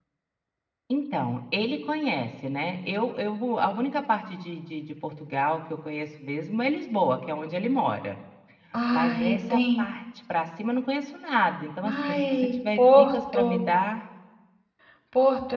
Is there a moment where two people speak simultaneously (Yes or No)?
Yes